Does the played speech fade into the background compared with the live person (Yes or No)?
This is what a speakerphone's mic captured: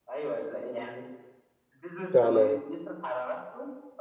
Yes